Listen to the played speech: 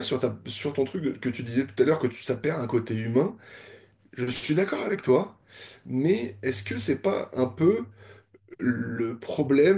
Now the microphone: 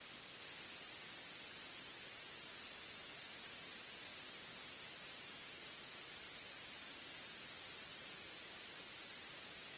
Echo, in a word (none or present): none